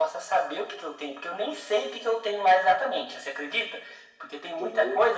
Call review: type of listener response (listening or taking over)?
listening